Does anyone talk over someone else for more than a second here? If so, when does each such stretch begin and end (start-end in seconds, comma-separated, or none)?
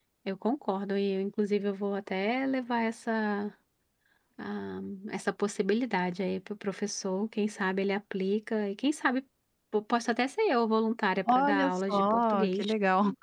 11.3-12.7